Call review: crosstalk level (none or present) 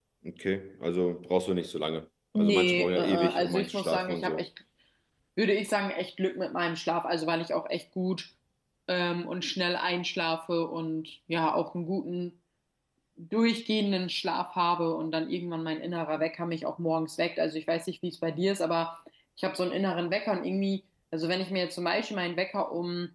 present